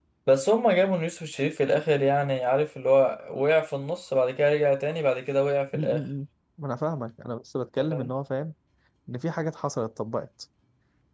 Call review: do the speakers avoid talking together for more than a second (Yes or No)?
Yes